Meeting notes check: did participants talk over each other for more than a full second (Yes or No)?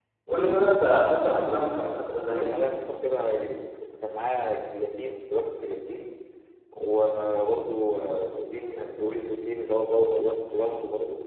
Yes